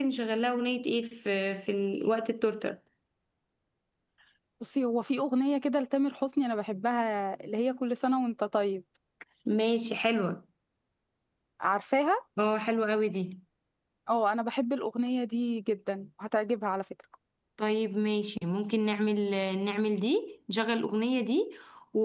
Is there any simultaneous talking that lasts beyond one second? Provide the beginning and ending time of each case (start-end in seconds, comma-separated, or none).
none